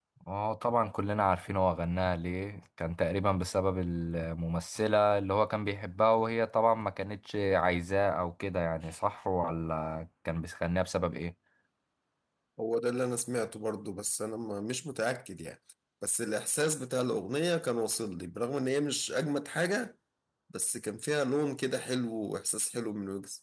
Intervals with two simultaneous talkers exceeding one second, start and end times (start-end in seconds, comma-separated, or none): none